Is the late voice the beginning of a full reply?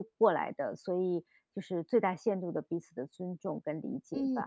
Yes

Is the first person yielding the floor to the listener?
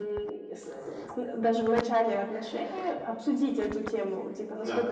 No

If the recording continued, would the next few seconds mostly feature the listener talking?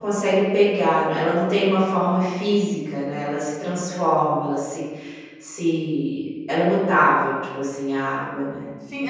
Yes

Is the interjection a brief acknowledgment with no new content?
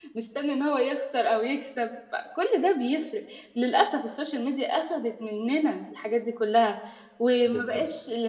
Yes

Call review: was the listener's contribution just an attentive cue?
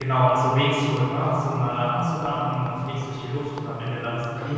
Yes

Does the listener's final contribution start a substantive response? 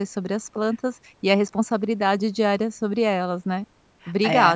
Yes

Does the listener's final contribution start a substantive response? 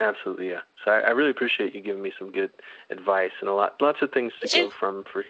No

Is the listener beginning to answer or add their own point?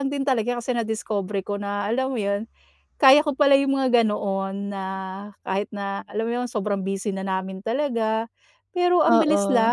No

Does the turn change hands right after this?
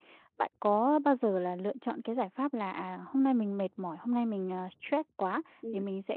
No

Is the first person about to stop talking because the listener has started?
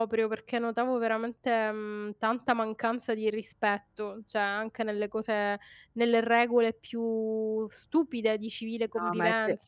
Yes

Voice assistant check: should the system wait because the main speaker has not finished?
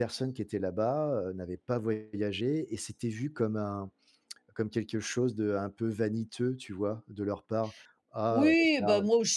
No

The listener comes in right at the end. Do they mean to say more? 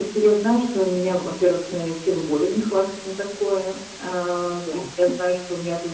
No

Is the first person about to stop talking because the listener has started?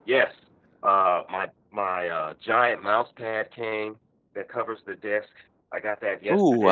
Yes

